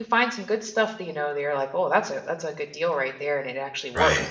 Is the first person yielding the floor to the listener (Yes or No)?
No